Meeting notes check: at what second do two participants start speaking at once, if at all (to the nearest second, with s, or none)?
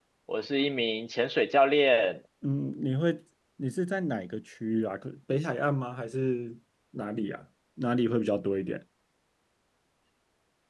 none